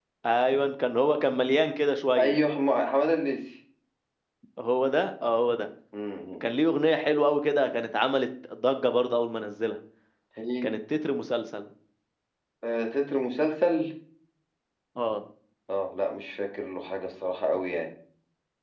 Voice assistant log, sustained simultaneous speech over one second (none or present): none